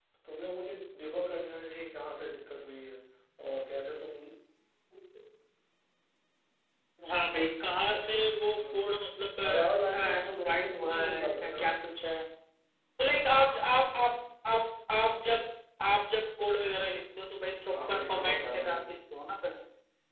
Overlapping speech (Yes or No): Yes